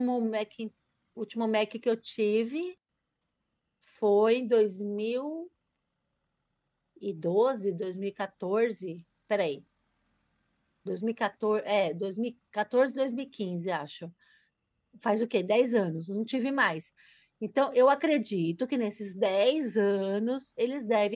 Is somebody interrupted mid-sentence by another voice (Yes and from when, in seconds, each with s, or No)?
No